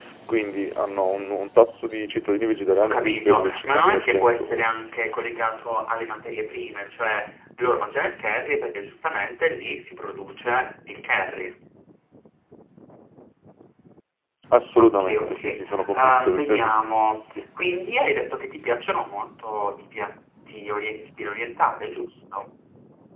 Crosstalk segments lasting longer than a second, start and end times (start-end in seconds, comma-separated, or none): 2.8-4.7, 14.8-16.8